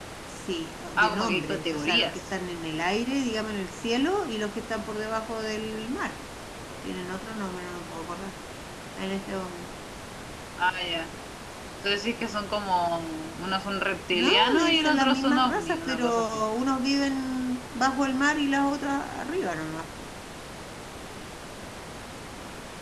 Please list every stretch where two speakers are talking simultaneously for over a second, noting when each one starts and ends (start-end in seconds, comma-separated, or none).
1.0-2.2, 14.2-16.4